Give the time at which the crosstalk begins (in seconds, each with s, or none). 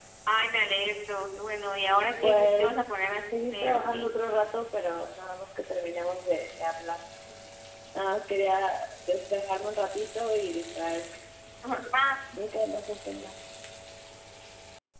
2.2 s